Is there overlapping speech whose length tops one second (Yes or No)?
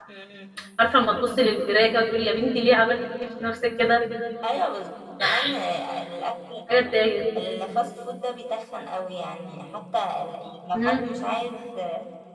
No